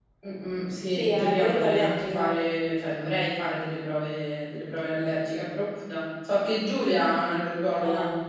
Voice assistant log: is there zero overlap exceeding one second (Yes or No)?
No